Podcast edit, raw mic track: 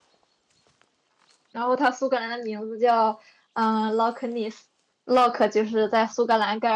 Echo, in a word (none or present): none